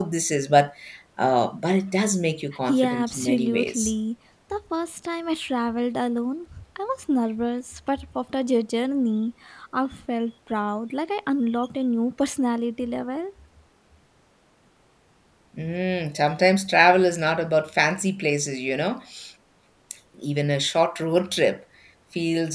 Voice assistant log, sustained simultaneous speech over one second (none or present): present